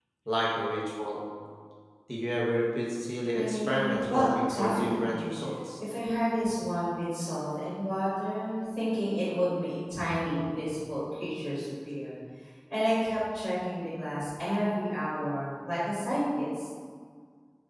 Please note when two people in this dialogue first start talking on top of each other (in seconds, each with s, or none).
3.3 s